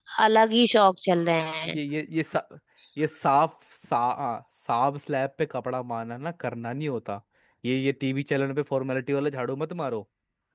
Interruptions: none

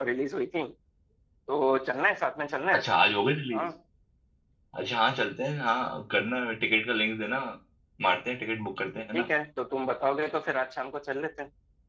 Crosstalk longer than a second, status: none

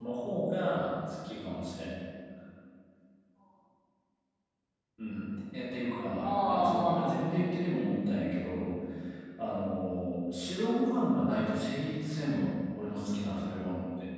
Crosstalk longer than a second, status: present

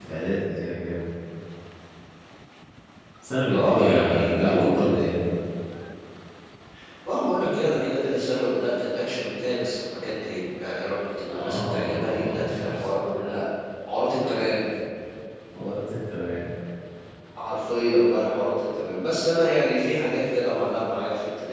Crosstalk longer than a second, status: present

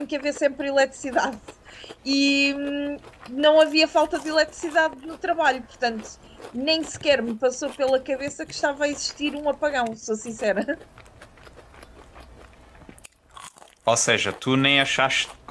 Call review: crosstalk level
none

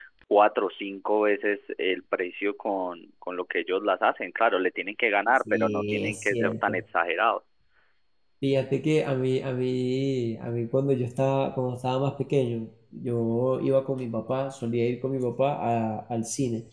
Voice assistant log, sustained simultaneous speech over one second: present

